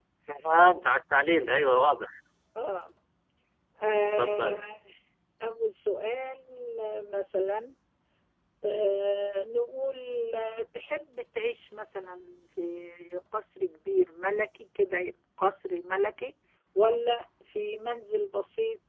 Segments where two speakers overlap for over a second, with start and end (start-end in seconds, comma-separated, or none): none